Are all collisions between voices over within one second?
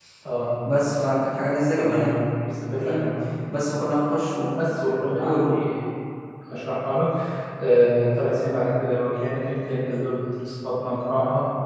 Yes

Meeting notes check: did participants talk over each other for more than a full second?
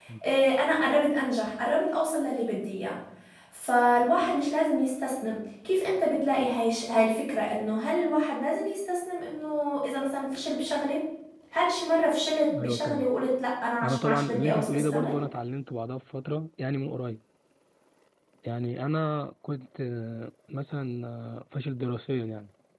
Yes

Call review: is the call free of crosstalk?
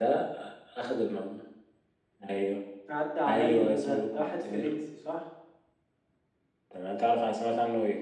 No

